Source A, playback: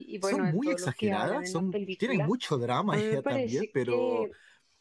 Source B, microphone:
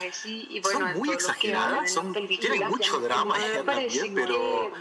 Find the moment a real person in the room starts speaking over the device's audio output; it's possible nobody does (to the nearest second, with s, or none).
1 s